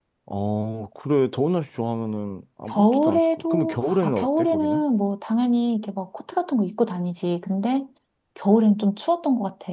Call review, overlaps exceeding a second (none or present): present